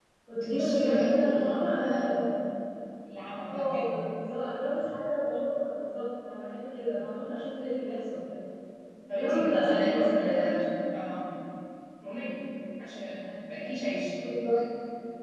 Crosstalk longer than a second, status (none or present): present